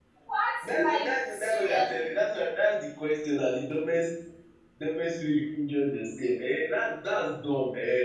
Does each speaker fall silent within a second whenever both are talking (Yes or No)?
No